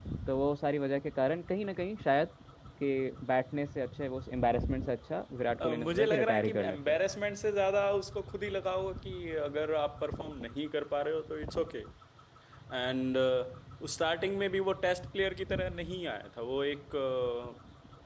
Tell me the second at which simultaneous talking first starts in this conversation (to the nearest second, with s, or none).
6 s